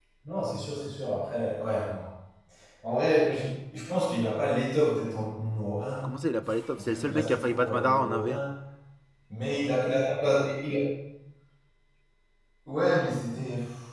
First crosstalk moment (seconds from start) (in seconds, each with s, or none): 6.8 s